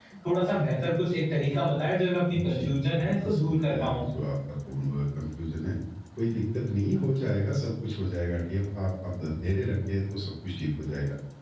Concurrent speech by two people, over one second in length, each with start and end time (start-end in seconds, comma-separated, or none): 2.4-3.9